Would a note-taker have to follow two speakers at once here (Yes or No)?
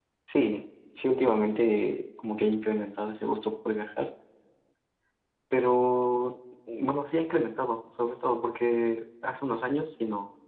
No